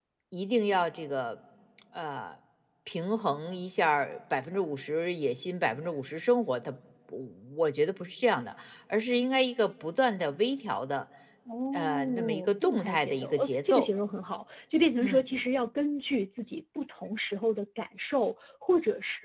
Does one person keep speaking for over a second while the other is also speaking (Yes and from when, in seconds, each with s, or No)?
Yes, from 11.7 s